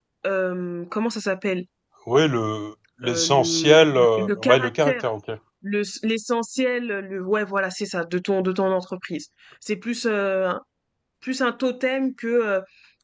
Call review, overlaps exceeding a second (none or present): present